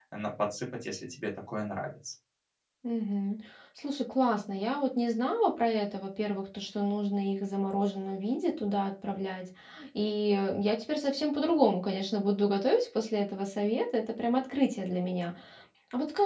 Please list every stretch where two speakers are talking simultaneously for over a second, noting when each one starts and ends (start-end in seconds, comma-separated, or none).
none